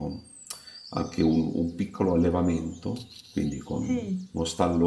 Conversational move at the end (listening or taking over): listening